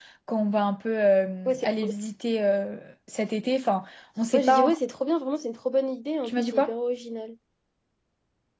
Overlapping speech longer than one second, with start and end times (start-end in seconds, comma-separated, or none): none